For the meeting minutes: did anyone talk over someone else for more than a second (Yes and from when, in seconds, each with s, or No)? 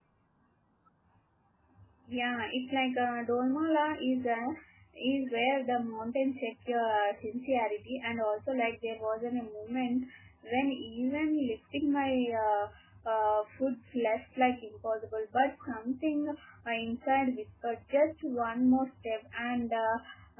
No